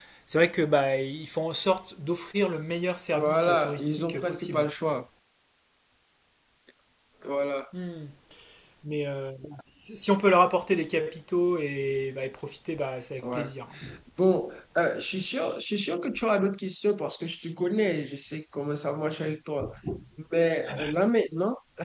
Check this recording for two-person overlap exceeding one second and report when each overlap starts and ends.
3.1-4.7

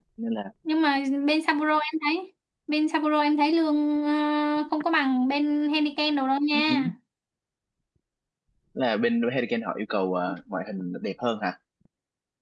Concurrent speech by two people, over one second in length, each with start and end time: none

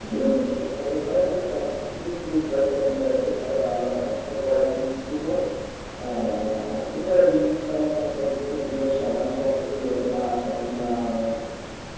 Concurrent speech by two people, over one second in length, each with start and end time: none

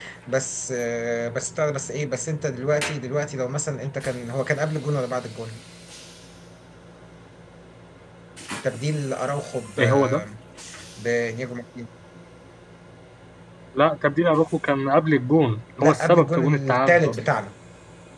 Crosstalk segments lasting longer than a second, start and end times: 15.8-17.2

